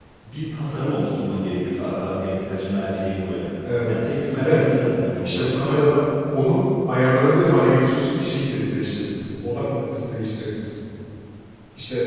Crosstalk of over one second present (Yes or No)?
No